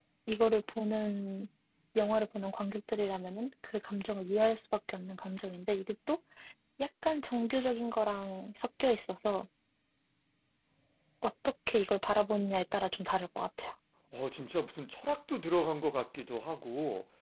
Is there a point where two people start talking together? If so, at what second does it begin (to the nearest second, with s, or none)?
none